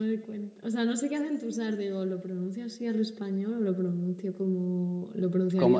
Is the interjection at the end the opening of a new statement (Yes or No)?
Yes